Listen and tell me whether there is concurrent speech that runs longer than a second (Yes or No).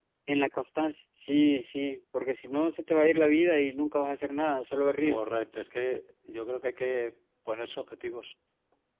No